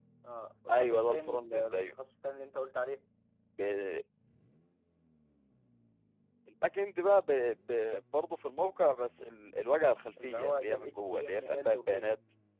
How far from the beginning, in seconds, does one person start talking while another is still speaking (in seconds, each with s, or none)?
0.7 s